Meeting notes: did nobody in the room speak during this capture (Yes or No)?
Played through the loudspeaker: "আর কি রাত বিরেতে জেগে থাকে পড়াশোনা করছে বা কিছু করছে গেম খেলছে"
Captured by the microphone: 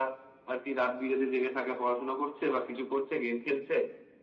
Yes